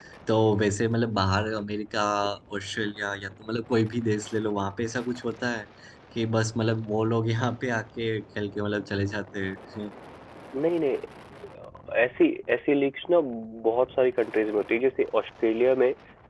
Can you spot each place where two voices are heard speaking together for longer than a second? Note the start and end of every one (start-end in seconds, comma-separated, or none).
none